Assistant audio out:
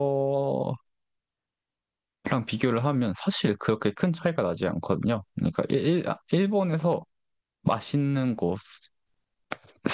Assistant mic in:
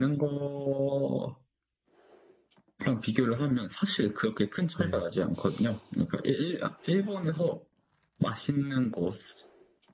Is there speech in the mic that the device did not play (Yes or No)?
Yes